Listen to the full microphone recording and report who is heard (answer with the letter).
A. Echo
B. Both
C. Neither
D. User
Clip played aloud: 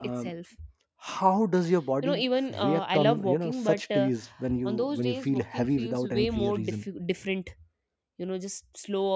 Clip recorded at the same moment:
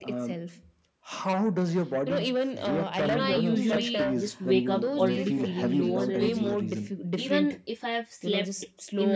B